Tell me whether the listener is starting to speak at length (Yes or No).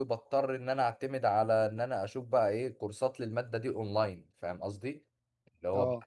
No